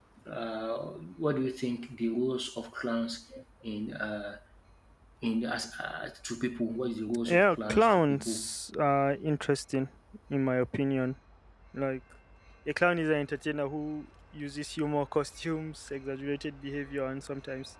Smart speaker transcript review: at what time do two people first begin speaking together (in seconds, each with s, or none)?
7.2 s